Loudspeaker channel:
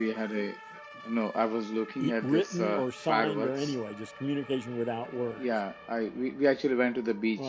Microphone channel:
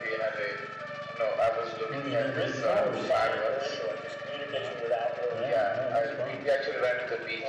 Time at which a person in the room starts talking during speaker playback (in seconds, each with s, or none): 1.9 s